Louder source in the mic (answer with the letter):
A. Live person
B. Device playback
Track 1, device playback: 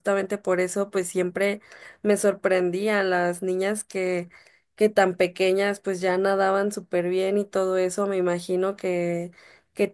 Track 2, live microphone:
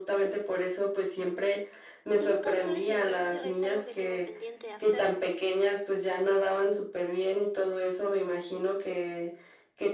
B